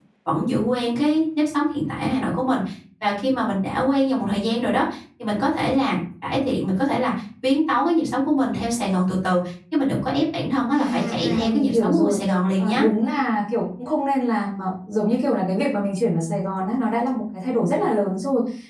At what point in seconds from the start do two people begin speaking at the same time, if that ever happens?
10.7 s

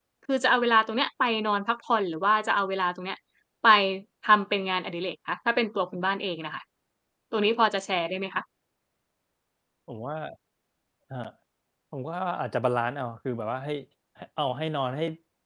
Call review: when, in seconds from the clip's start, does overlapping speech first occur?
none

